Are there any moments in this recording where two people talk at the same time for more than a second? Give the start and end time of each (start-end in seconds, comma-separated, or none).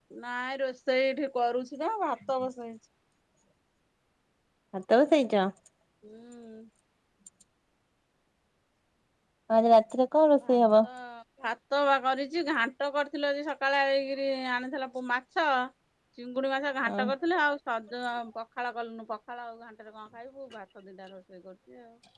none